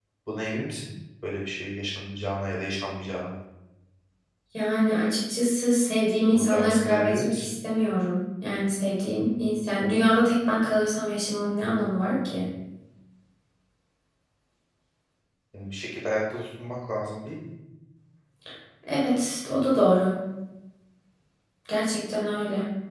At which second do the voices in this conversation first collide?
6.3 s

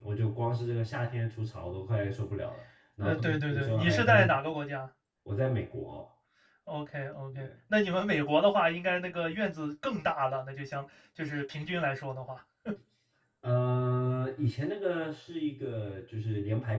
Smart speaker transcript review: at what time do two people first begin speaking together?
3.0 s

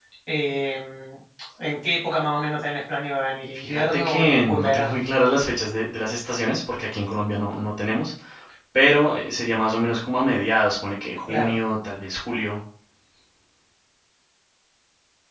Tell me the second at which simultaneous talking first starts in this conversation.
3.5 s

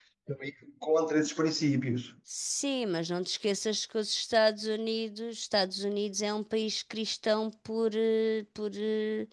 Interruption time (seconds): none

